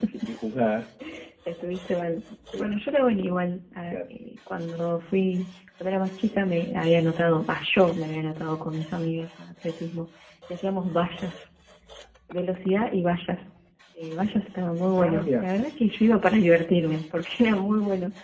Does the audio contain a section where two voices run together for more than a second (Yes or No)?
No